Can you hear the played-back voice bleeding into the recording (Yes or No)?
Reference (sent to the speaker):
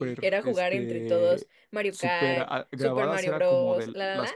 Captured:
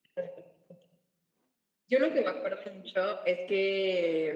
No